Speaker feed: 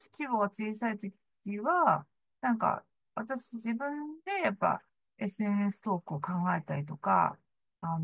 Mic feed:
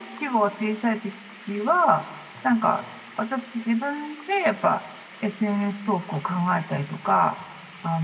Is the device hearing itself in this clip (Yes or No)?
Yes